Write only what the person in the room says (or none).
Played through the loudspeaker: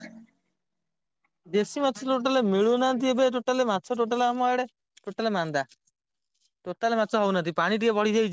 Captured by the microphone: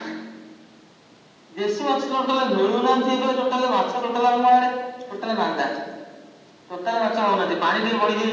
none